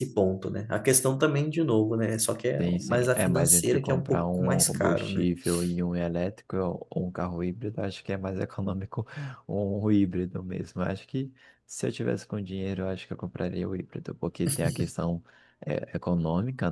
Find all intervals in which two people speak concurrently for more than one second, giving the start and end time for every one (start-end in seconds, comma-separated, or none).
2.6-5.3